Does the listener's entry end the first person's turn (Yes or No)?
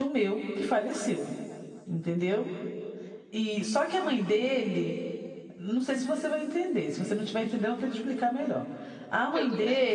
No